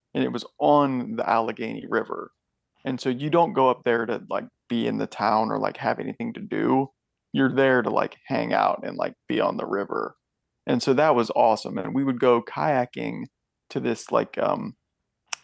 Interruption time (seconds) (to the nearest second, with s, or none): none